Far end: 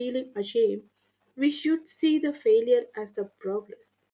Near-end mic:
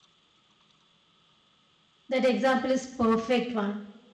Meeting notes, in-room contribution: present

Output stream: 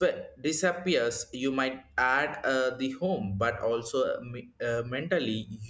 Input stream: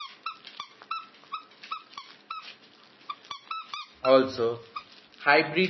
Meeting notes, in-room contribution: present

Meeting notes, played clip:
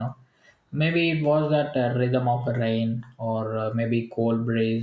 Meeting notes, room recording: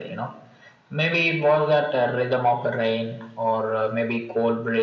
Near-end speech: none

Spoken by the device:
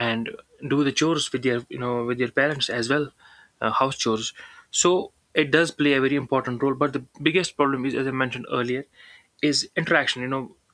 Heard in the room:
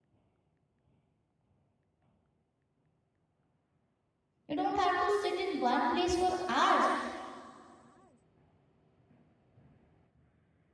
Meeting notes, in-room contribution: present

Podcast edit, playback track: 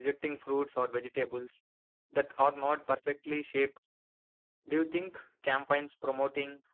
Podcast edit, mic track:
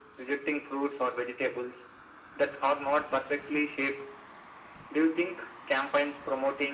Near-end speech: none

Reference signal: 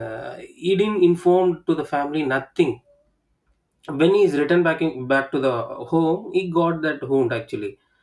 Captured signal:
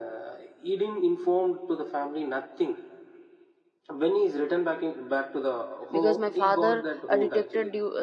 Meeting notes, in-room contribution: present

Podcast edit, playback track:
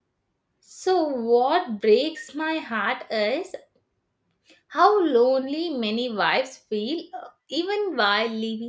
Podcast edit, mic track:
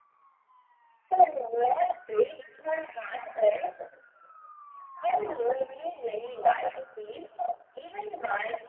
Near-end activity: none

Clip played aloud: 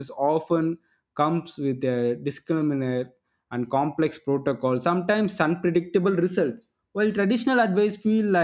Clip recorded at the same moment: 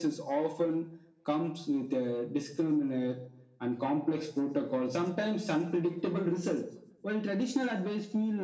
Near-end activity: none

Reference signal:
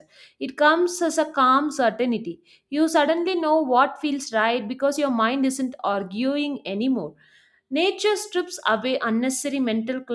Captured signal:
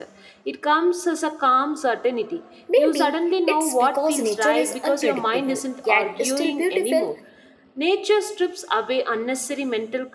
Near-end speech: present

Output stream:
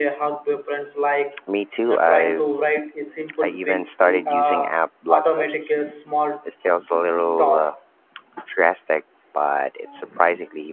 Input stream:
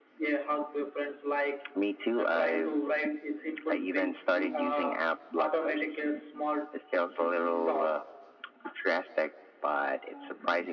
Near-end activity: none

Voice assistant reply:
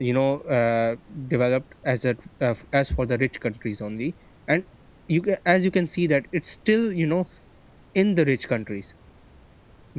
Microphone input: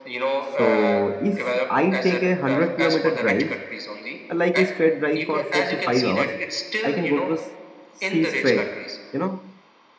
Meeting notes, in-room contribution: present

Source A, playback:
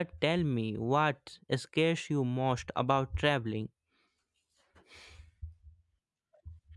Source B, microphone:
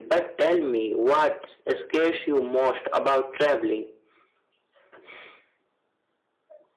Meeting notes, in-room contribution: none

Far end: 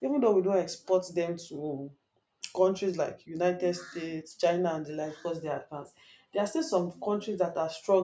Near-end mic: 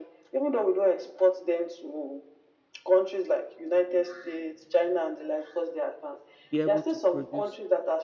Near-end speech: present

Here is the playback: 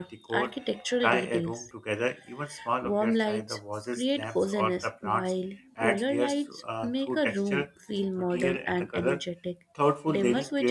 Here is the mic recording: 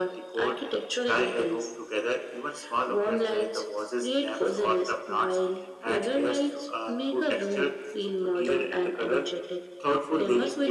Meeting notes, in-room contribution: none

